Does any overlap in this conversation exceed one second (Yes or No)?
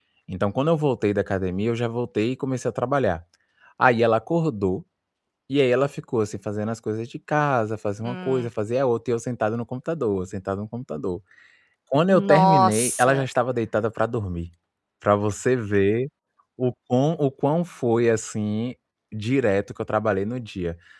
Yes